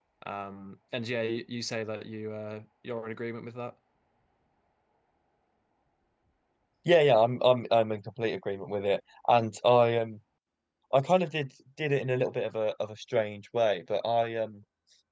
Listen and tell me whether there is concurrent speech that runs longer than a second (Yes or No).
No